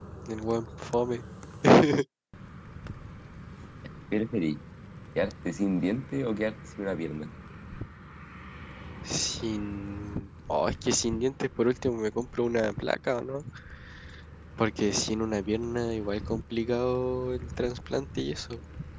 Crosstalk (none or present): none